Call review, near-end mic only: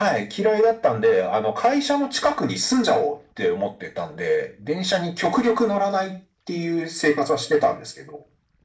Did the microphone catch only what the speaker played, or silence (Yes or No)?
Yes